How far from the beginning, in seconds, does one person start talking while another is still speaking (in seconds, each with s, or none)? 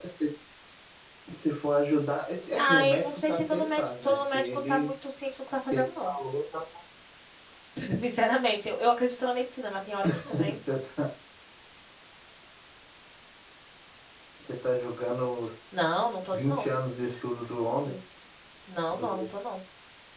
2.5 s